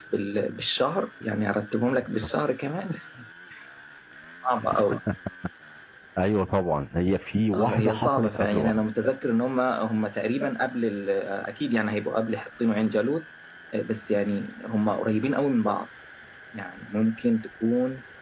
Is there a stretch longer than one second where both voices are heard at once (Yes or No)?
Yes